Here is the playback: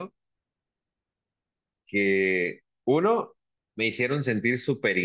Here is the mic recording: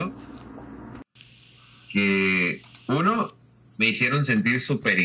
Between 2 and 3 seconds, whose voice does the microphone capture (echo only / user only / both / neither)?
echo only